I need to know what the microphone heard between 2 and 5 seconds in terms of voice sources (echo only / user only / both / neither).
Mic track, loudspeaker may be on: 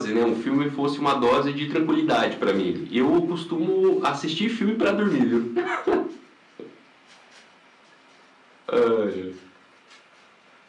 echo only